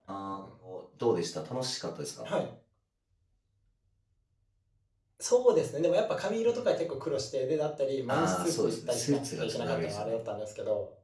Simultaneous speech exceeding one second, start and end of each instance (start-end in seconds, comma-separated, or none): 8.1-10.2